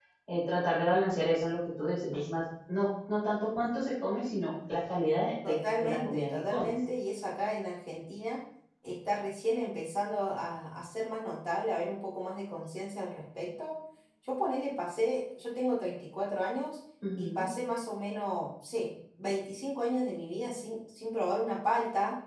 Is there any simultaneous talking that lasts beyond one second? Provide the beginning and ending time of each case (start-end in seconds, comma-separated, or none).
5.4-6.7